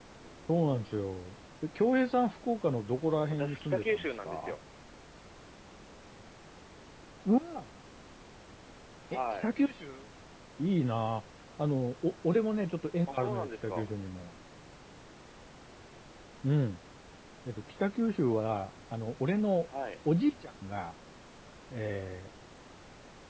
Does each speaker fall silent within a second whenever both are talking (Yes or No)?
No